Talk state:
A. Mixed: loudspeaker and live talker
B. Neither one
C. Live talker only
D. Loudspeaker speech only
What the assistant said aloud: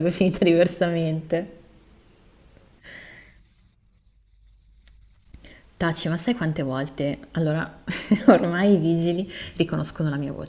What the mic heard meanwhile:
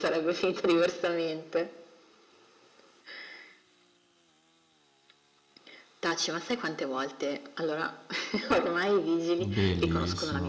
A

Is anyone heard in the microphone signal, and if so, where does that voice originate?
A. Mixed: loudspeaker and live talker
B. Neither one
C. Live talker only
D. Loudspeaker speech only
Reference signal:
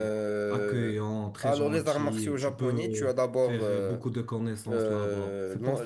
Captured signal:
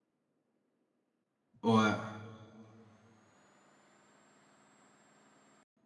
C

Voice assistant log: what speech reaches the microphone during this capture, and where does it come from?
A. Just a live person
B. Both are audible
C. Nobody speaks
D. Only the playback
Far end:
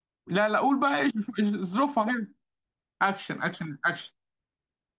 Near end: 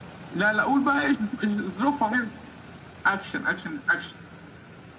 D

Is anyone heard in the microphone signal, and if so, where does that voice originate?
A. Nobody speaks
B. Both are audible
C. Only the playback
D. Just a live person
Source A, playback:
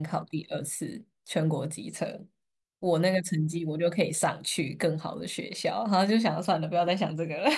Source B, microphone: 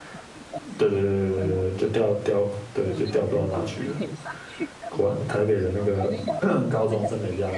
B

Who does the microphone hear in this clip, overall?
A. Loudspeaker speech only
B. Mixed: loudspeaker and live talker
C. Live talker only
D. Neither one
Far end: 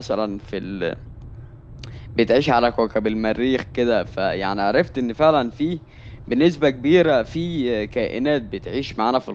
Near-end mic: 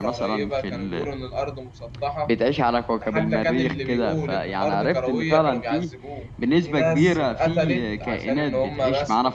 B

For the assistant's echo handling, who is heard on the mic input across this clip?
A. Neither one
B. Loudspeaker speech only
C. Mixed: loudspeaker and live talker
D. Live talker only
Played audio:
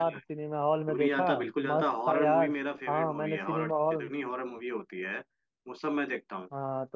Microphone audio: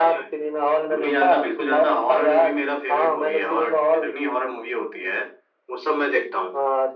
B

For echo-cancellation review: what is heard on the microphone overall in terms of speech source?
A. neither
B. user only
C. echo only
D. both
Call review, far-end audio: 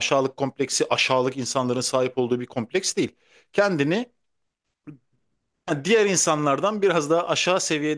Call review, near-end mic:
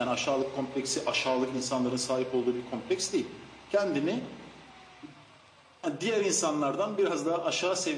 C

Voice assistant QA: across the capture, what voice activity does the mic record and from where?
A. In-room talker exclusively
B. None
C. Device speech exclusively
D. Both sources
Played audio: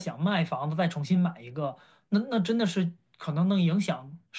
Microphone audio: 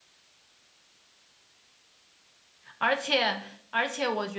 A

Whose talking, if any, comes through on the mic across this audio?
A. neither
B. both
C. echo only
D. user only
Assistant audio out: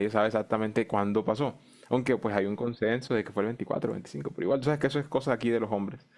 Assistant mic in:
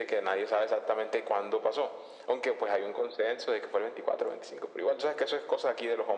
C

